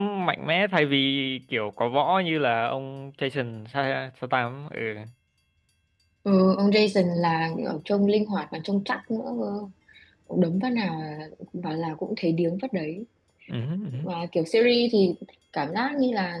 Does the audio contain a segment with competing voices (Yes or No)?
No